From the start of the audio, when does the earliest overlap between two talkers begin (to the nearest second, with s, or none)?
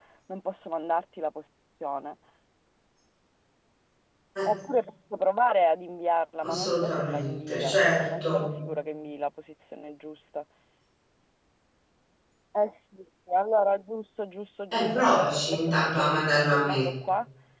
6 s